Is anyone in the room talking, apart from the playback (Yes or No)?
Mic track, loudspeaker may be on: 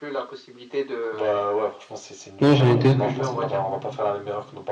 Yes